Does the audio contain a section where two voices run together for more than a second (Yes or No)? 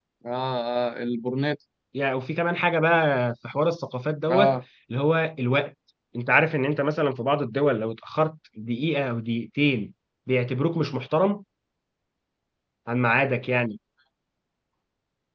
No